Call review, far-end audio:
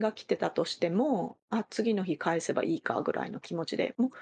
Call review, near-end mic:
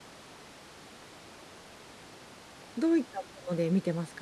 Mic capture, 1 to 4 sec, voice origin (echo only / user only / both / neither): user only